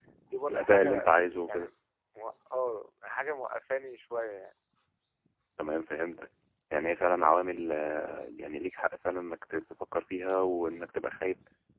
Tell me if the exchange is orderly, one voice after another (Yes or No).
No